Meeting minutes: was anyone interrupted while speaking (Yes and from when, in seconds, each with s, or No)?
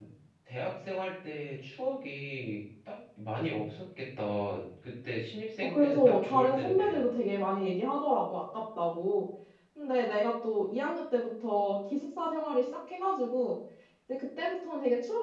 Yes, from 5.6 s